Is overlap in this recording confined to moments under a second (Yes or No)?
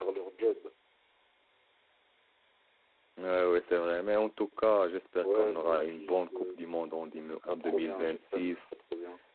No